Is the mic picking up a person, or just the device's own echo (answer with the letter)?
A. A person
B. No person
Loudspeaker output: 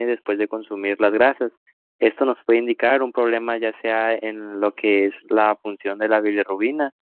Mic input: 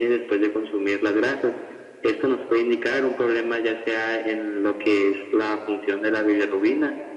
B